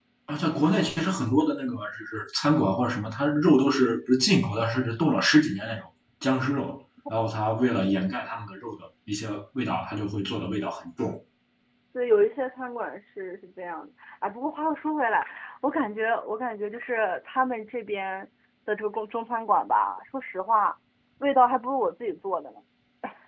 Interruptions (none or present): none